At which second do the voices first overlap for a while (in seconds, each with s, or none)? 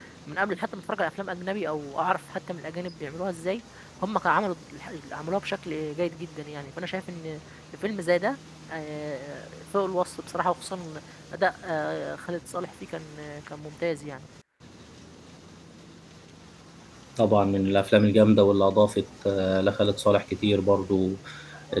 none